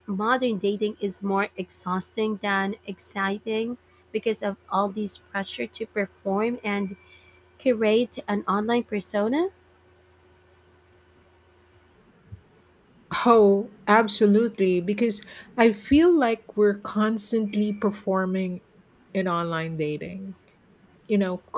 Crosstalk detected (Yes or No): No